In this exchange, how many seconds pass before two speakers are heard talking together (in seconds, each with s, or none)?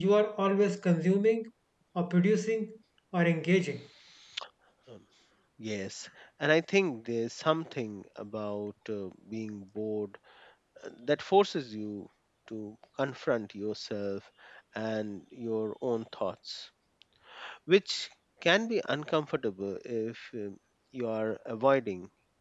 none